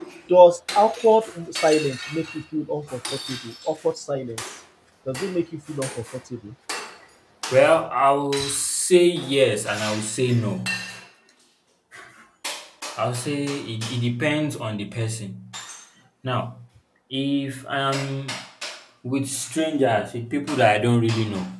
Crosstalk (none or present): none